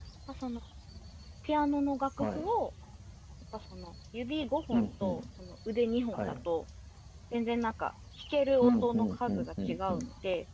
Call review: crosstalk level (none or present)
present